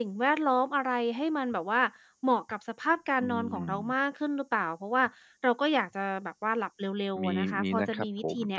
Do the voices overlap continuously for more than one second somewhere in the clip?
Yes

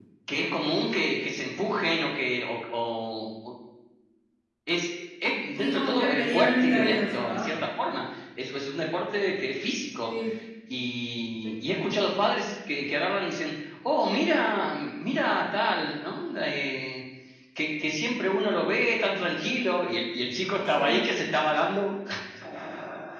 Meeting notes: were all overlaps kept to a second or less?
No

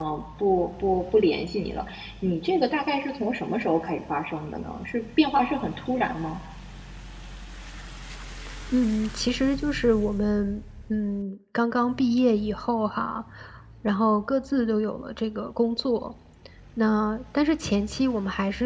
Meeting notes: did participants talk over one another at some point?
No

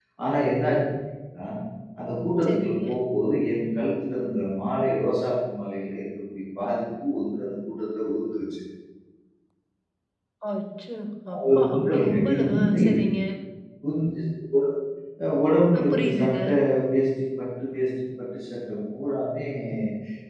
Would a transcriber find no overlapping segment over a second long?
No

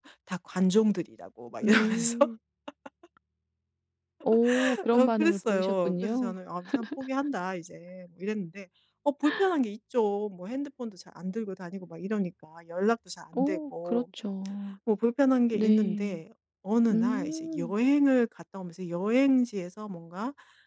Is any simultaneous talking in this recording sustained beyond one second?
Yes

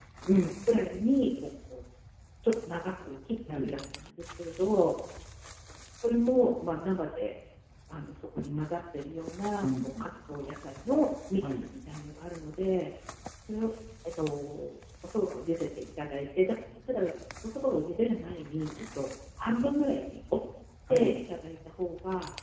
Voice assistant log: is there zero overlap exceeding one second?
Yes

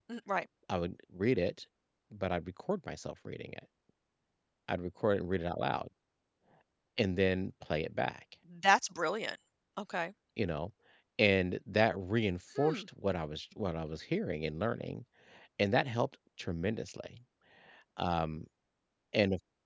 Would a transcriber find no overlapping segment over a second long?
Yes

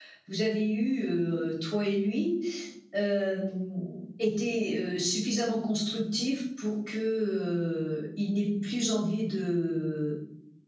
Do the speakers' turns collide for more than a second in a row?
No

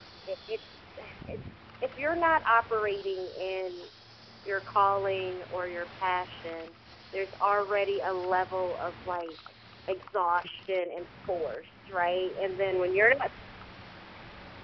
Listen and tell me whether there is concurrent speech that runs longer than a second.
No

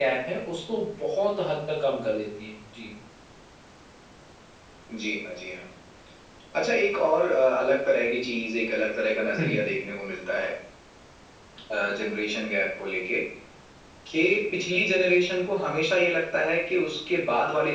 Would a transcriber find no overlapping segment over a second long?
Yes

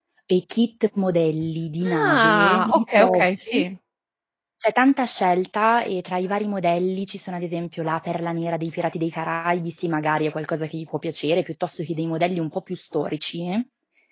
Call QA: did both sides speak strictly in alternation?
No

